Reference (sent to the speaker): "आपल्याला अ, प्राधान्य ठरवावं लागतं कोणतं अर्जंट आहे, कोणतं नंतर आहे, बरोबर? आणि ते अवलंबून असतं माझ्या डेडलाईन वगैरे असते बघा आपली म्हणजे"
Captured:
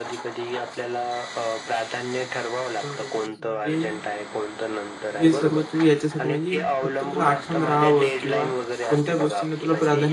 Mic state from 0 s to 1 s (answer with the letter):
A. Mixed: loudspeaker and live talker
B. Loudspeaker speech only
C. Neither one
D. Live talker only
B